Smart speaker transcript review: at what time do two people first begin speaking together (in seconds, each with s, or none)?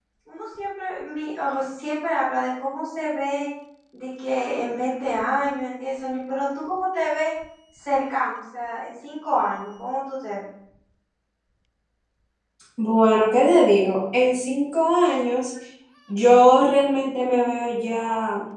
none